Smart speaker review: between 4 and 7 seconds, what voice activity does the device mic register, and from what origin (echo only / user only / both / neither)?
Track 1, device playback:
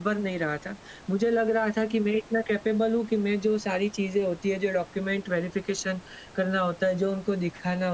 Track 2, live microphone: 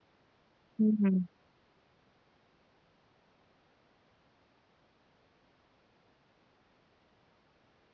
neither